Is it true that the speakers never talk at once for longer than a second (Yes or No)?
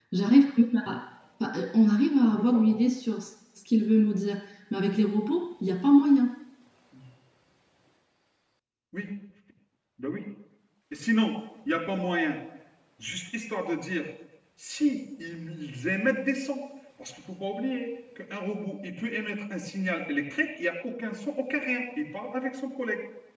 Yes